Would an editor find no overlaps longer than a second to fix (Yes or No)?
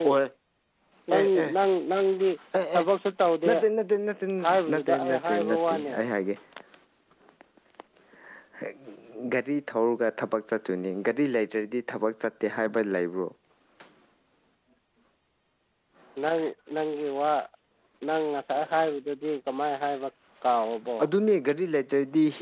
No